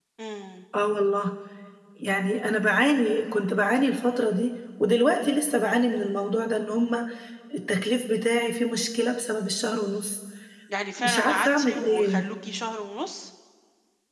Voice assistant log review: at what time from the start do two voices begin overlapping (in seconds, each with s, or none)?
11.0 s